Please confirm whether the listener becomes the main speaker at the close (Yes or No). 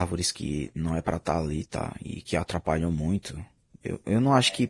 No